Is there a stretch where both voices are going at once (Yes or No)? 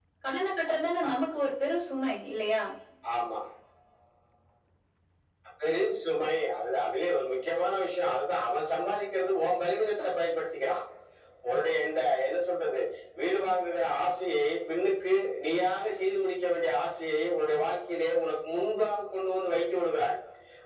No